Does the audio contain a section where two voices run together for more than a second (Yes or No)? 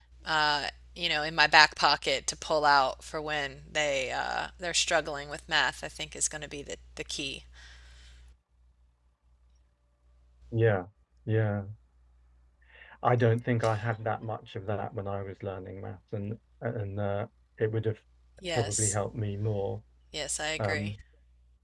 No